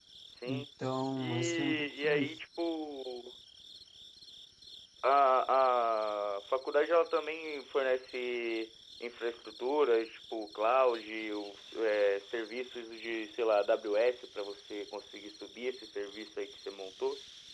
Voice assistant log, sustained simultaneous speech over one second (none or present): present